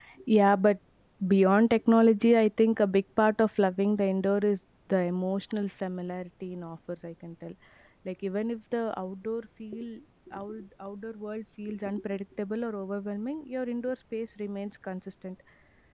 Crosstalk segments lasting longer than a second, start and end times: none

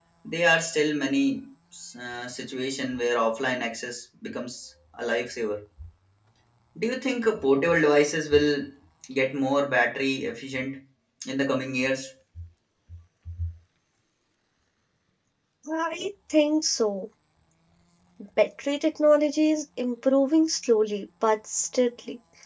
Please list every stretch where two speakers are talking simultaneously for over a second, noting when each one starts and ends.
none

